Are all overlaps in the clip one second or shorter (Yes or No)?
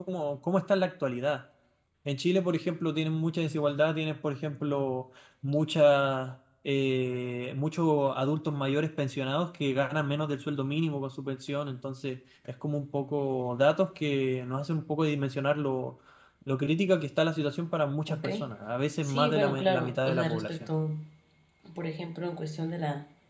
No